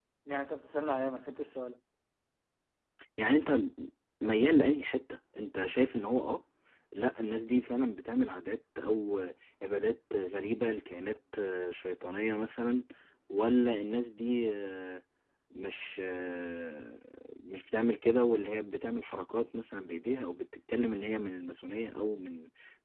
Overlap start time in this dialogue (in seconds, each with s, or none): none